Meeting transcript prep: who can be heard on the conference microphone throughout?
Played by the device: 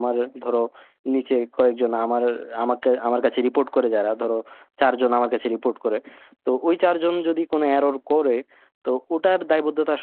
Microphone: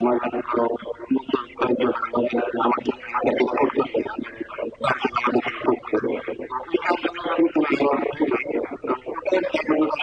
echo only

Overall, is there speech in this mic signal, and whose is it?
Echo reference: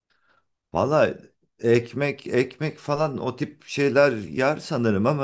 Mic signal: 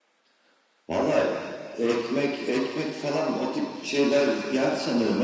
echo only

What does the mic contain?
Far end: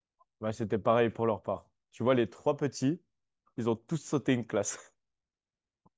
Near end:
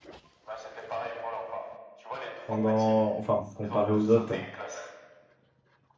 both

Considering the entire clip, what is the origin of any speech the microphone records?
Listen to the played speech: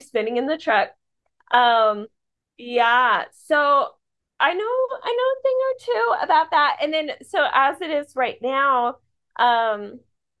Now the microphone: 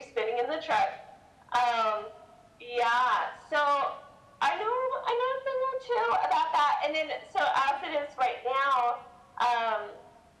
echo only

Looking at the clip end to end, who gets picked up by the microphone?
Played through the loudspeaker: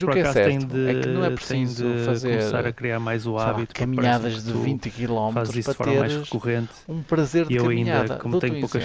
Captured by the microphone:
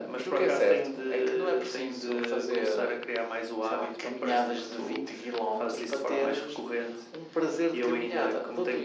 echo only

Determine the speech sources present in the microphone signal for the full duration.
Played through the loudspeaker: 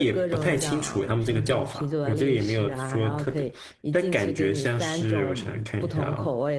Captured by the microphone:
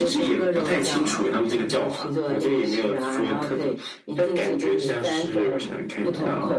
echo only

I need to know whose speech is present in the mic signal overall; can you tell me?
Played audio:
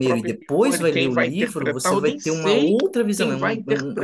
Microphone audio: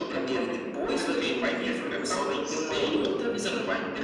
echo only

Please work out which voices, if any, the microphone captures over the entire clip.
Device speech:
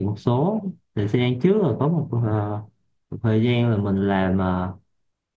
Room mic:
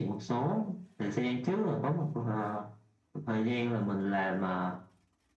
echo only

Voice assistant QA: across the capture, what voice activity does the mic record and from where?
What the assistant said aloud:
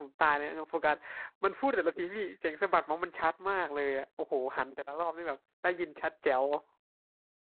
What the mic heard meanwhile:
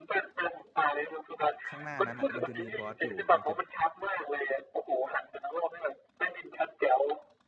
both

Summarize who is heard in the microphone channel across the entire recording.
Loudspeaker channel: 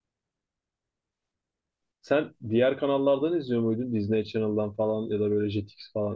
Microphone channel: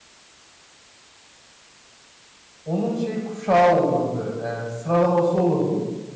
user only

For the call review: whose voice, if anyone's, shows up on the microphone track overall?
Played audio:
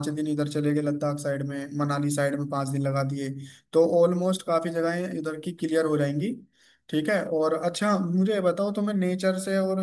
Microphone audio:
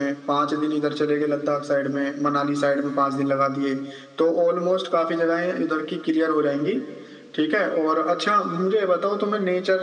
echo only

